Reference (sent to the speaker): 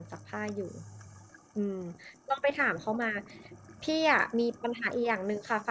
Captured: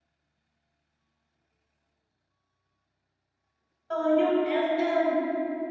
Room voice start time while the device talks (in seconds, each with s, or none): 3.8 s